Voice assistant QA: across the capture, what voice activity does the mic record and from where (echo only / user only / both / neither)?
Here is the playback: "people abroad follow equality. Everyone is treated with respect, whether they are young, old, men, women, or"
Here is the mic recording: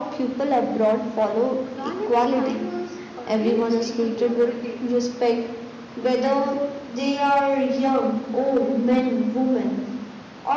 both